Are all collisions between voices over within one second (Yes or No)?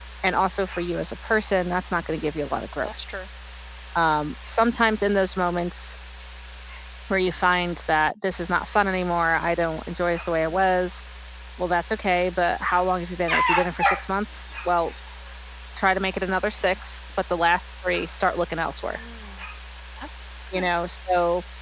Yes